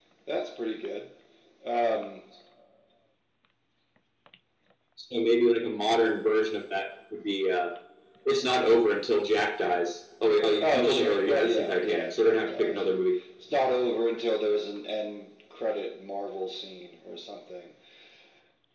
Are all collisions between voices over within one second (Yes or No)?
No